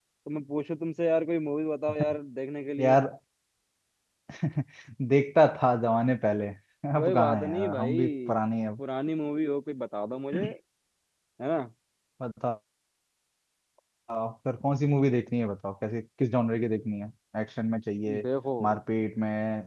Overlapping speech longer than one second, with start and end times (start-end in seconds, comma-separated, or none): 7.0-8.3